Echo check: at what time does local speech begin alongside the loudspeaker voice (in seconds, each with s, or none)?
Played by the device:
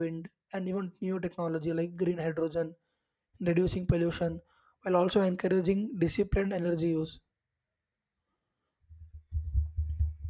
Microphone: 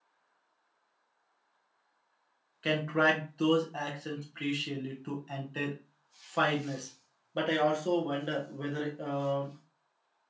2.6 s